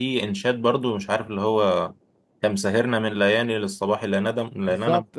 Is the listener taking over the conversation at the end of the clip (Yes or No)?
Yes